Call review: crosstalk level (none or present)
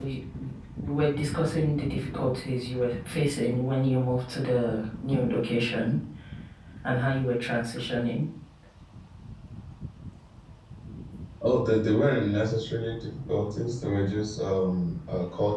none